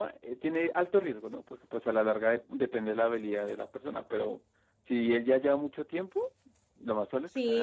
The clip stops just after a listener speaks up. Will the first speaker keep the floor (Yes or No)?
No